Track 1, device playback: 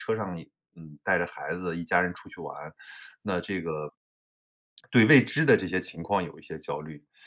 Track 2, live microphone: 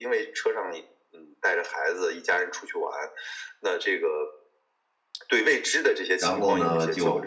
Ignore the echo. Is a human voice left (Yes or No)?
Yes